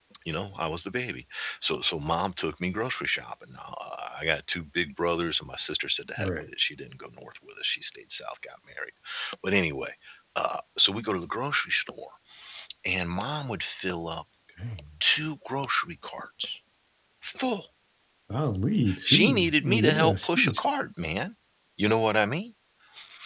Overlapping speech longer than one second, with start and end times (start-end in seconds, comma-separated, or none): 19.1-20.6